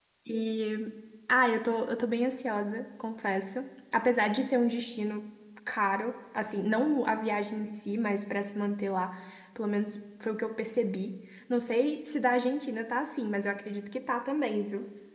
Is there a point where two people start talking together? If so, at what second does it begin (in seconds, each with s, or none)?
none